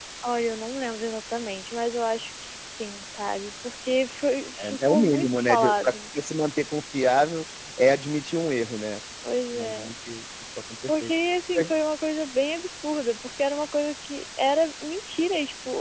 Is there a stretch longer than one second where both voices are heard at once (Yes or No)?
Yes